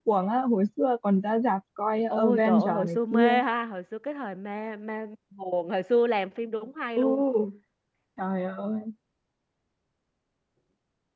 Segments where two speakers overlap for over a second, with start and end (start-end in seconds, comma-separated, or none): 2.1-3.4